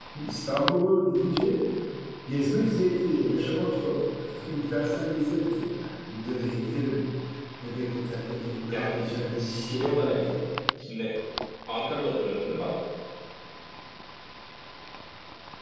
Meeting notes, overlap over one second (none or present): present